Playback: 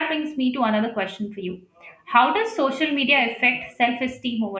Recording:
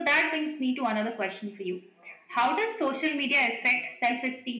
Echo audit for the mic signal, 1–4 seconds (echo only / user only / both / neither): echo only